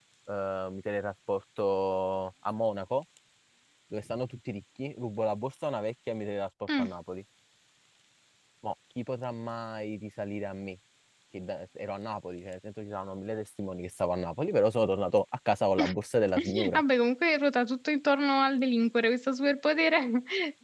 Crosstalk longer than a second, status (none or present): none